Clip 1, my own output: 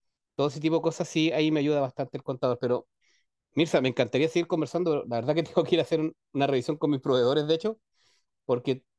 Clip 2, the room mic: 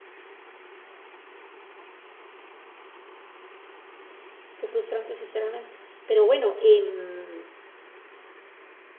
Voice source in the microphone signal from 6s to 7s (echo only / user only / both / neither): user only